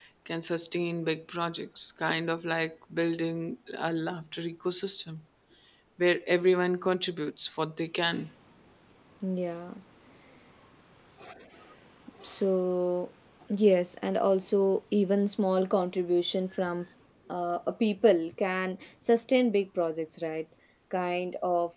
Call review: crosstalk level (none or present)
none